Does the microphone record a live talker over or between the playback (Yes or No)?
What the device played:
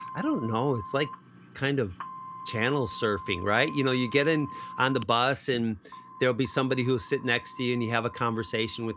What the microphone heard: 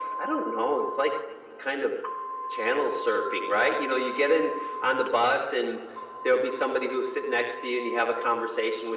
No